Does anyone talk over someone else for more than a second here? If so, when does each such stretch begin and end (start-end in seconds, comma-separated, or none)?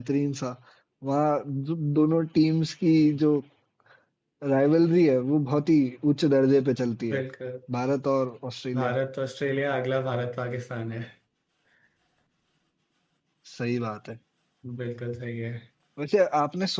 none